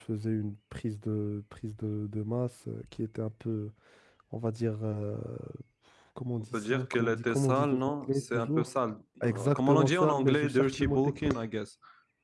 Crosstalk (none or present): present